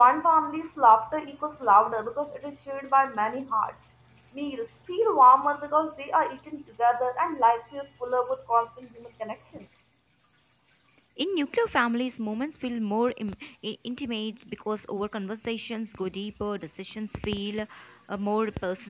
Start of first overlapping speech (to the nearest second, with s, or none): none